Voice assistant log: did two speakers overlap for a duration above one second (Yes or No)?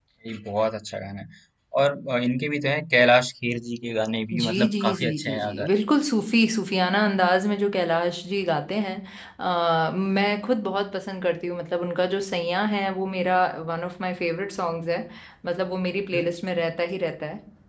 Yes